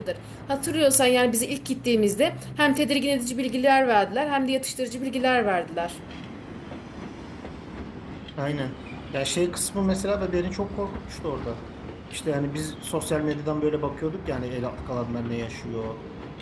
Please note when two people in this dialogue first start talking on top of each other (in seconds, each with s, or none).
none